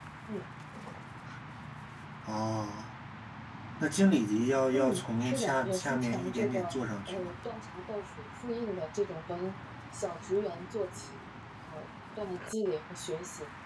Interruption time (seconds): 4.7 s

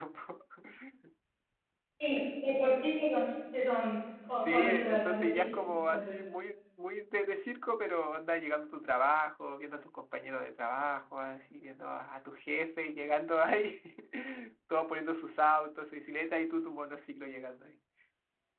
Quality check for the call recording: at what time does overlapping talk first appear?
4.3 s

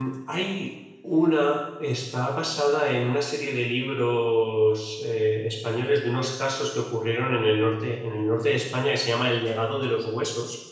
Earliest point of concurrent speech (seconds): none

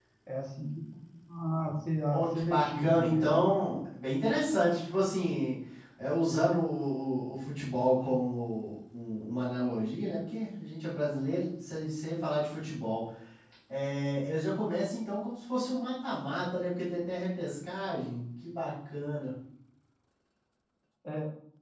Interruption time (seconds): 2.1 s

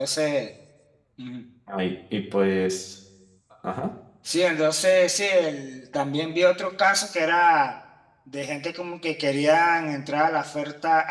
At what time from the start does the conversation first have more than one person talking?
none

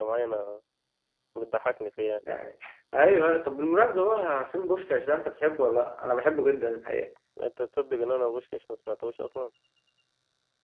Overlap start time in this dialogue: none

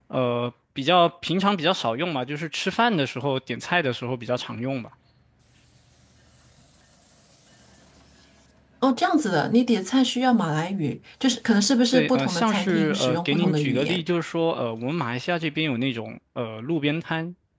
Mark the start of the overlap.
11.9 s

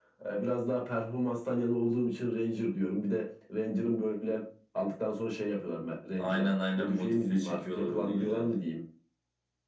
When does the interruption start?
6.2 s

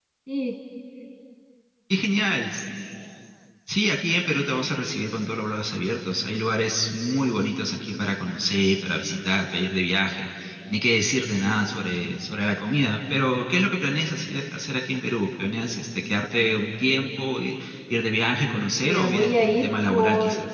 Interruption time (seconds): 18.8 s

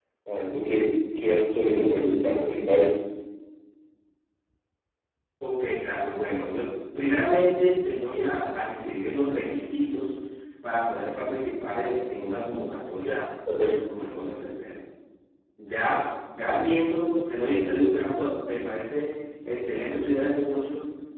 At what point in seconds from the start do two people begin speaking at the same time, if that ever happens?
none

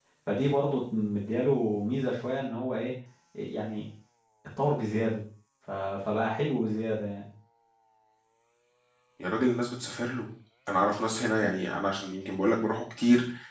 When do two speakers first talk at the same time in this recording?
none

